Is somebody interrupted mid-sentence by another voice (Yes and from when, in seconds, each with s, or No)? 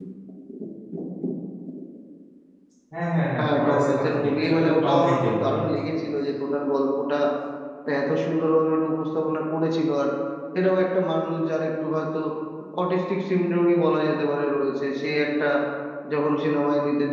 Yes, from 3.4 s